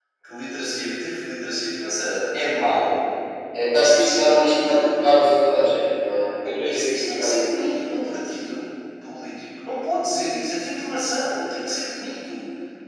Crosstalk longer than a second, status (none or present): present